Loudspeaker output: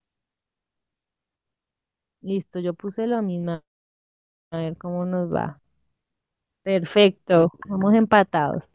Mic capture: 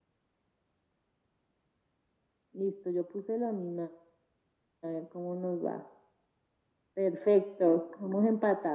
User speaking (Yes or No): No